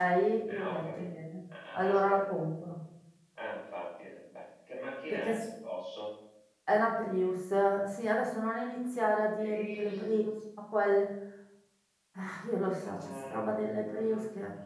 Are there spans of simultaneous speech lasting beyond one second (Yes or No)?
Yes